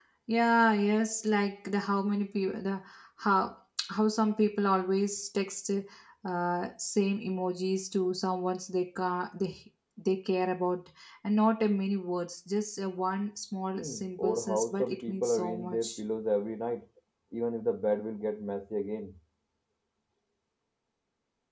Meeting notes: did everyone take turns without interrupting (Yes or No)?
No